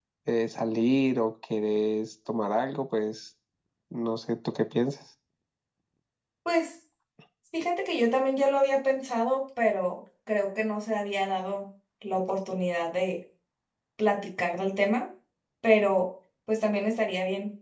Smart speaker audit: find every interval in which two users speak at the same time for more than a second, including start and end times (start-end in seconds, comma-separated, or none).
none